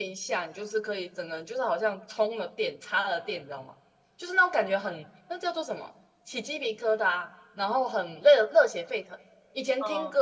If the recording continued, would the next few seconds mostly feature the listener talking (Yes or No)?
No